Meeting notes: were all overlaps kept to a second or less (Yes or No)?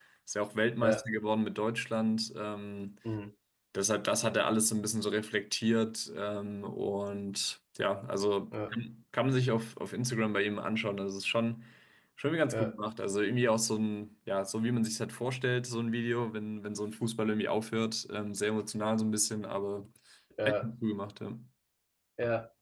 Yes